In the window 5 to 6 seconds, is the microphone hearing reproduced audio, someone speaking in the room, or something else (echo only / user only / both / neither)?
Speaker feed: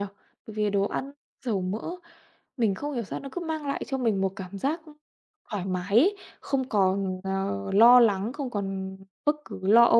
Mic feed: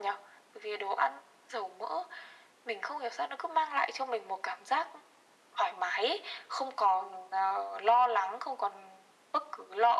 echo only